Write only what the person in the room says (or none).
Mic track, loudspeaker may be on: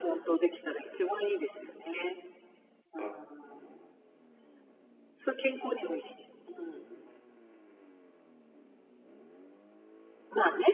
い、はいはい。